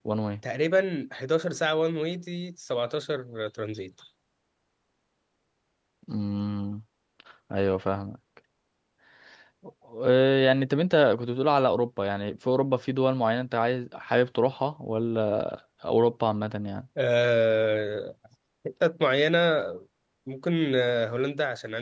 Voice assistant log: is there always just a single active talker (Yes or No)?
Yes